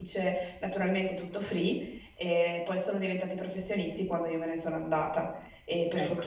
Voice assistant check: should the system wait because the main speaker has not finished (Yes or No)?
Yes